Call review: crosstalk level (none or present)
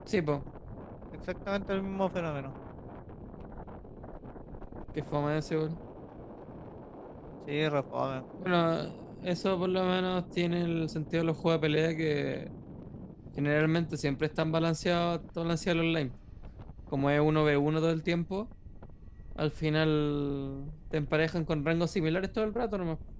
none